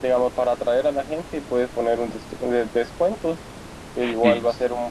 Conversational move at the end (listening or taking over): listening